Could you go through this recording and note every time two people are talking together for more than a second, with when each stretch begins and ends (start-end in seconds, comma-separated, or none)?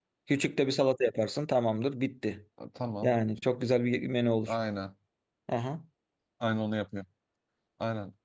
none